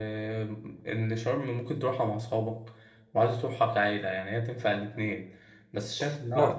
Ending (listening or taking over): listening